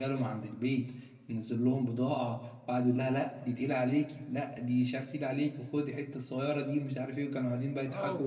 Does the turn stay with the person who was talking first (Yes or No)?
No